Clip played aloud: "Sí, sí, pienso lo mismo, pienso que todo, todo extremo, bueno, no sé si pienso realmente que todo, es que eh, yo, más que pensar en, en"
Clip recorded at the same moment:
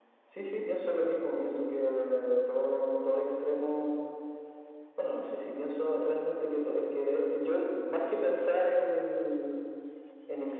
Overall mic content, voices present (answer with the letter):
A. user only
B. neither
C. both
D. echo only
D